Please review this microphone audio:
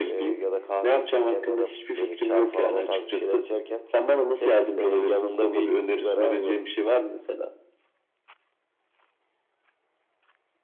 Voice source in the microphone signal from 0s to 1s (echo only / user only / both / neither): echo only